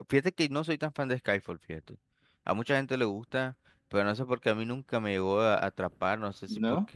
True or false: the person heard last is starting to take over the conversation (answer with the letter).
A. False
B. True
A